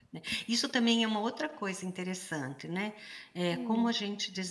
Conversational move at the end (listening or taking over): listening